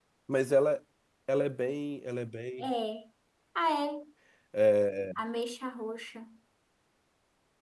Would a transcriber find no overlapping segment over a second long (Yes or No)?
Yes